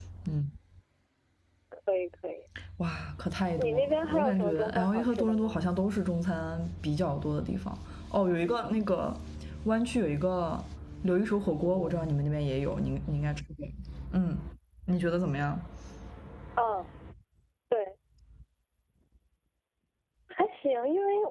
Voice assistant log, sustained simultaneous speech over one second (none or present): present